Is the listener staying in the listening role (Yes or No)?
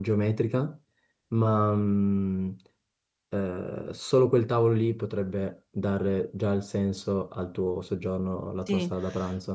No